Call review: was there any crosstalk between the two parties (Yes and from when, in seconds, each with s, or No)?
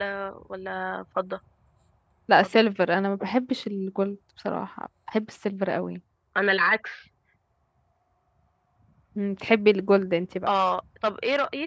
No